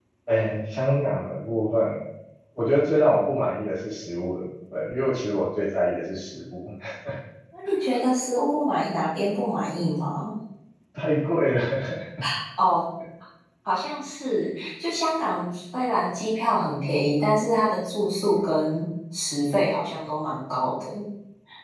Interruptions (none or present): none